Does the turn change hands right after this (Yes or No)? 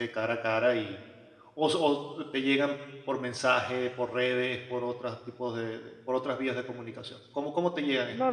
Yes